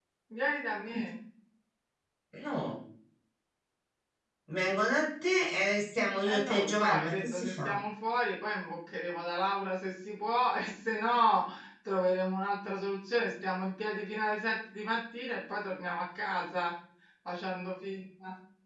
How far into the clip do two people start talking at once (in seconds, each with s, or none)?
6.2 s